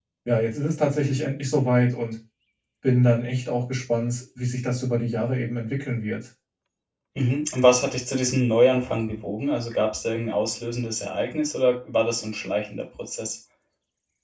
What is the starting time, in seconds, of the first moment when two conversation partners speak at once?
none

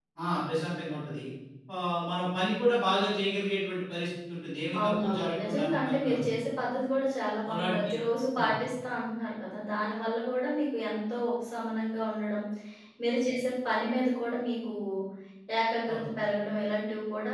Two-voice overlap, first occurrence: 5 s

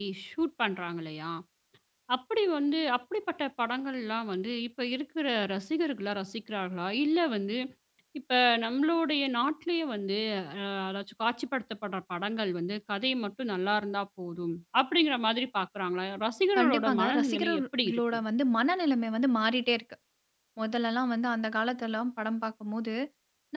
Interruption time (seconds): 17 s

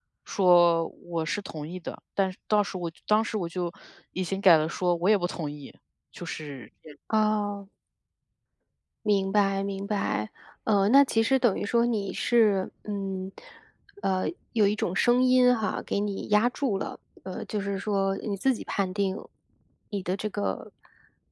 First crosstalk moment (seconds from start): none

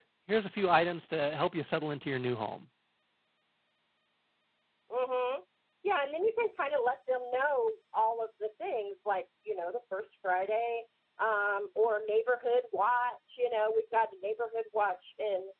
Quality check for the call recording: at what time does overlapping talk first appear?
none

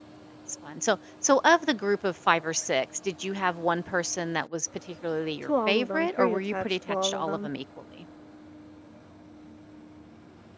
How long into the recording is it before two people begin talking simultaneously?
5 s

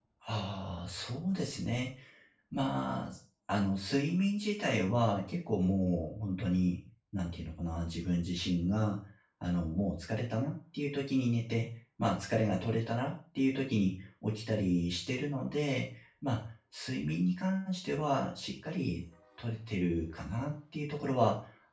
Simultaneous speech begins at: none

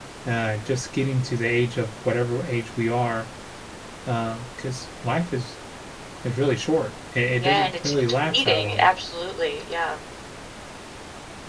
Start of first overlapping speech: 7 s

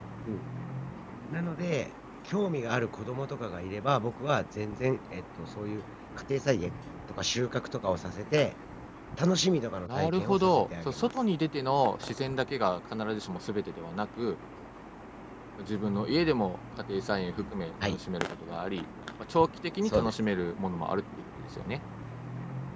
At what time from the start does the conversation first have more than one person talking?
10 s

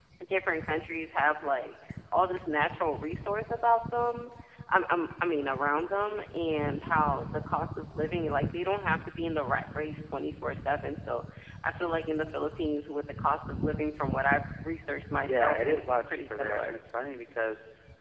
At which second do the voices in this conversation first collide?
15 s

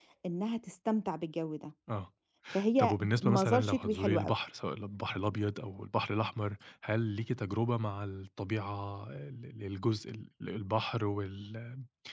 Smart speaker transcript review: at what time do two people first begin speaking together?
3 s

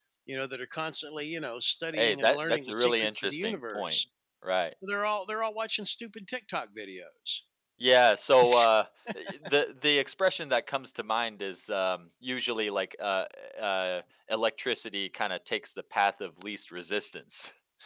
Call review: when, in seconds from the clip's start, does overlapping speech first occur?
2 s

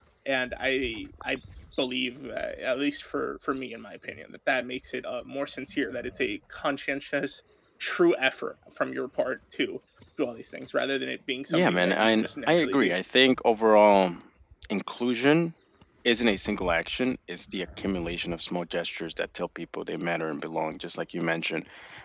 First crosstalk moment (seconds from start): 11 s

